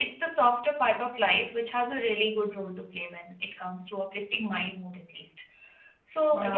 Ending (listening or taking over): listening